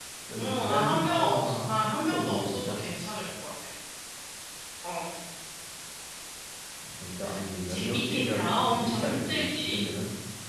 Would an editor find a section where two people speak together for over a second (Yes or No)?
Yes